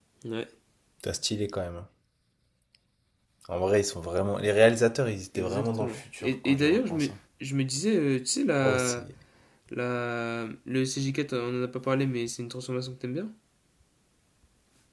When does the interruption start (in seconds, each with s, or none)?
5.3 s